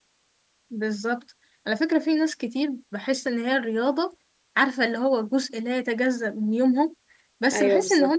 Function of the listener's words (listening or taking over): listening